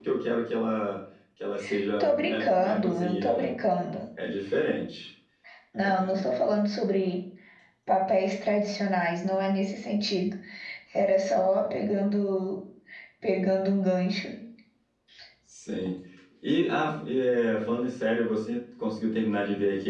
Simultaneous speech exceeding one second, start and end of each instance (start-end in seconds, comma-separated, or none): 2.0-3.5